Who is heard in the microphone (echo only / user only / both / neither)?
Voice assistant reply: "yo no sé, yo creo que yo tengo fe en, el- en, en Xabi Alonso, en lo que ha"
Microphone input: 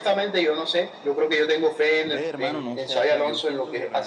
both